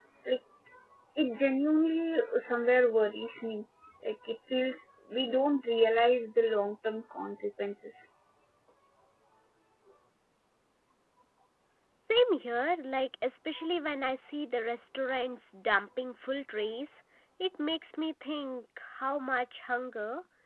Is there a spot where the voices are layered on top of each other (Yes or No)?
No